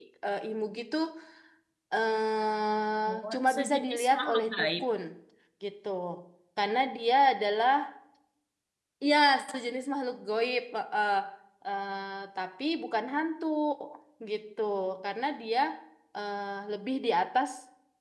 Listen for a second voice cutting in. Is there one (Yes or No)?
Yes